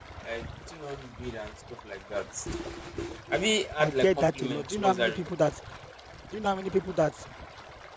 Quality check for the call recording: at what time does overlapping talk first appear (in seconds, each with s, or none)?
3.8 s